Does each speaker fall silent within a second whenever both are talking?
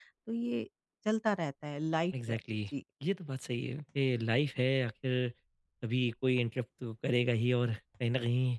Yes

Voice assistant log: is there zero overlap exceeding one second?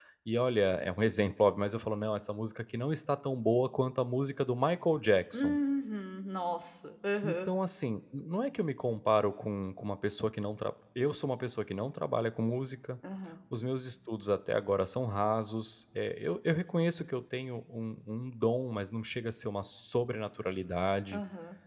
Yes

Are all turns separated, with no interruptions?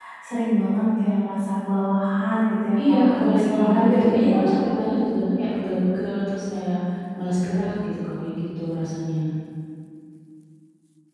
No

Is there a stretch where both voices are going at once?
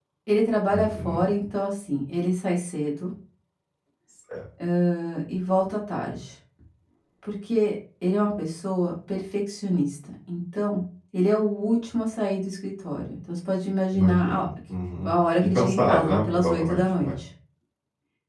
Yes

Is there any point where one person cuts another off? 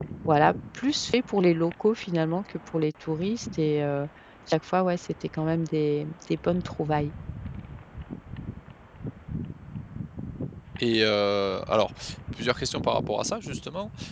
No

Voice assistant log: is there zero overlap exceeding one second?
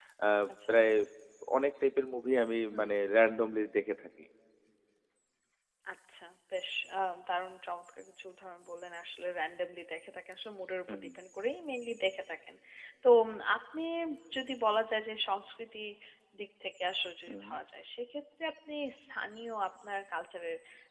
Yes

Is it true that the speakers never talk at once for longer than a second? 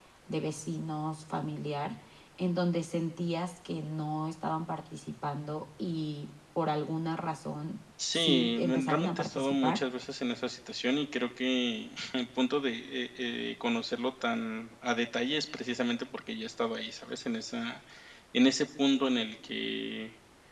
No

